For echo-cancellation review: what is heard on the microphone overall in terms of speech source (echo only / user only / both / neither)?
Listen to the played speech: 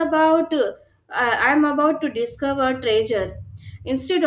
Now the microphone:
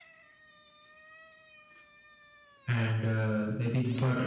user only